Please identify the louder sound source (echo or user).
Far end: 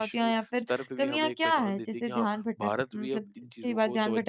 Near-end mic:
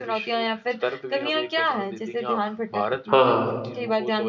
user